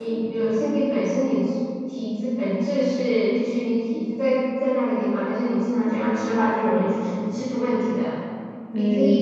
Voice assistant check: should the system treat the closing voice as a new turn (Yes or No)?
No